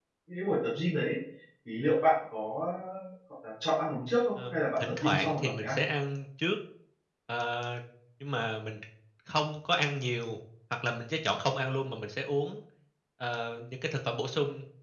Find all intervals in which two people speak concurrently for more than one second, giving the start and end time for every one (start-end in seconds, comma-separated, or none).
4.5-5.8